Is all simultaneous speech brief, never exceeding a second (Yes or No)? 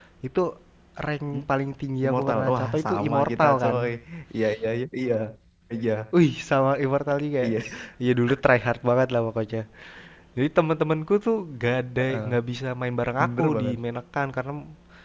No